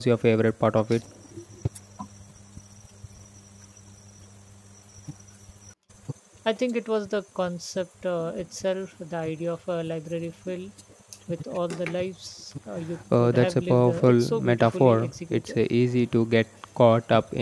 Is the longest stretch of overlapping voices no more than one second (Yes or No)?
No